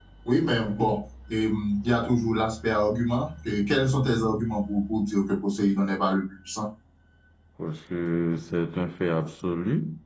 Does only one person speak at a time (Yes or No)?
Yes